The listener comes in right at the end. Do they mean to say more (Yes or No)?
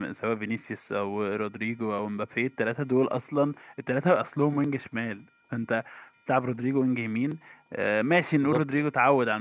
No